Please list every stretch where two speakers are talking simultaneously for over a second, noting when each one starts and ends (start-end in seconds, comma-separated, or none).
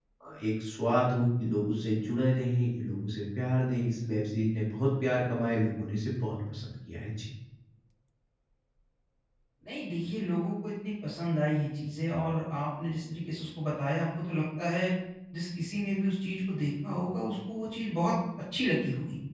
none